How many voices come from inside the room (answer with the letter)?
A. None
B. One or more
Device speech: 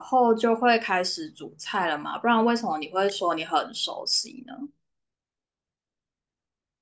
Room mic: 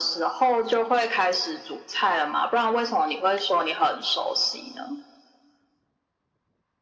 A